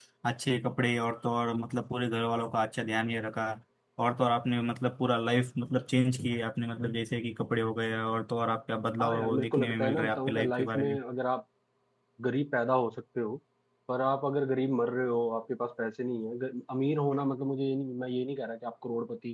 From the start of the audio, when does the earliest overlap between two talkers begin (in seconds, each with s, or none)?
9.0 s